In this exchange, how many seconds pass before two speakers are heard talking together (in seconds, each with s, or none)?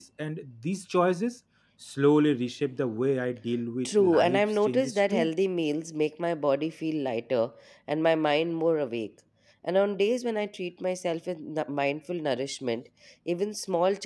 3.9 s